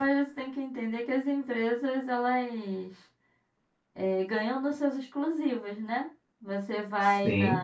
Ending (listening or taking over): listening